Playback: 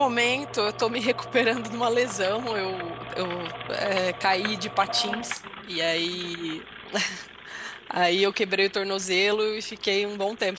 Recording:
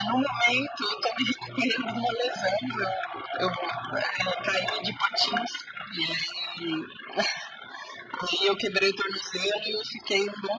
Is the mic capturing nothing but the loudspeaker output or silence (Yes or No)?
Yes